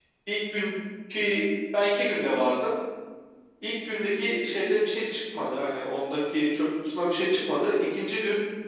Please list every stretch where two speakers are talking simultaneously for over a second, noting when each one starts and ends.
none

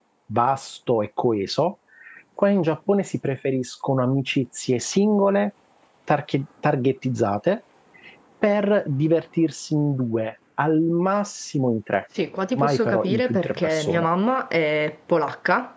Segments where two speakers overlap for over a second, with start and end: 12.5-14.1

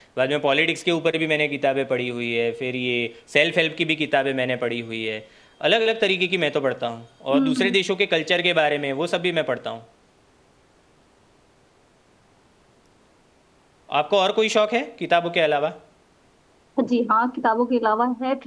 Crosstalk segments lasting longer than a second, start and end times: none

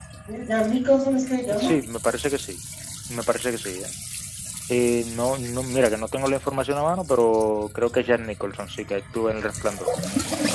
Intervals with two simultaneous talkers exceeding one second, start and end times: none

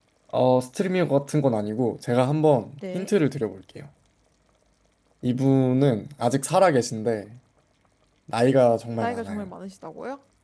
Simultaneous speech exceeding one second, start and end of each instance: none

